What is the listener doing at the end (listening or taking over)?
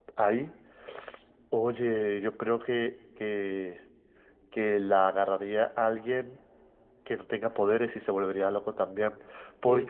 taking over